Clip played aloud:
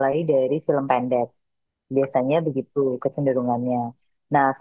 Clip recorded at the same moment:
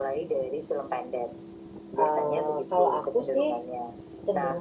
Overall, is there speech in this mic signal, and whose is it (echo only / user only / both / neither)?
both